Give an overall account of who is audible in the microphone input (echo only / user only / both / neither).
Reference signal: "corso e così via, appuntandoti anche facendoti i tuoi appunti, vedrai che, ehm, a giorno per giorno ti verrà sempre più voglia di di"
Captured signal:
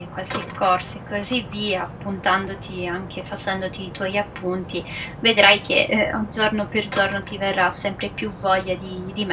echo only